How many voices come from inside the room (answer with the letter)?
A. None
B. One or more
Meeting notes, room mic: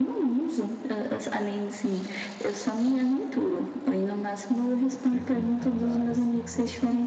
B